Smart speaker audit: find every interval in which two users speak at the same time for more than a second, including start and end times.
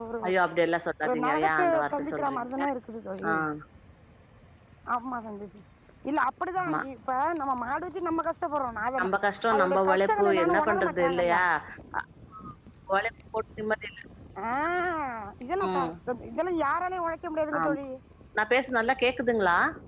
1.0-2.6, 9.5-11.4

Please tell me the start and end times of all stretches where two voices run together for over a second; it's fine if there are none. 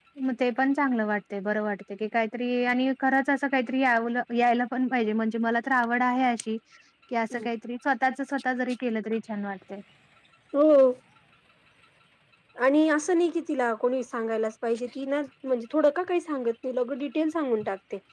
none

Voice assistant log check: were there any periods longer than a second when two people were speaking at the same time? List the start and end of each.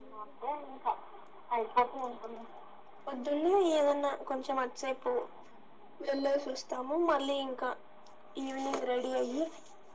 none

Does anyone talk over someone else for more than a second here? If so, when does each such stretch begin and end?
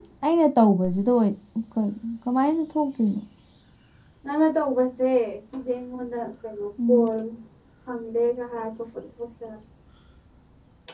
none

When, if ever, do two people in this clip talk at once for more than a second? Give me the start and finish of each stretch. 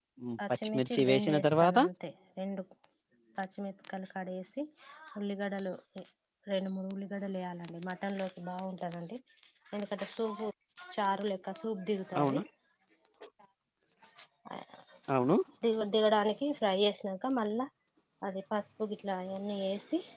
0.6-1.8

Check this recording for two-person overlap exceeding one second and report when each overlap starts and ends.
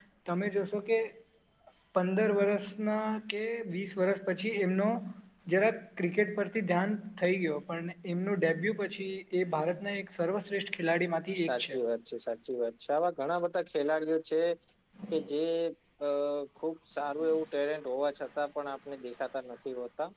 none

